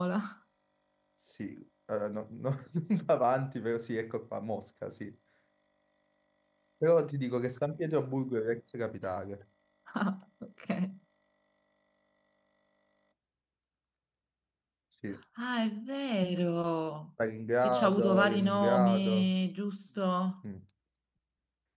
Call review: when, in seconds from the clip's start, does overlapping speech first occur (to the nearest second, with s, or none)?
18 s